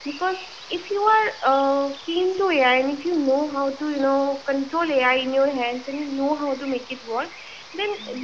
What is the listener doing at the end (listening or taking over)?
listening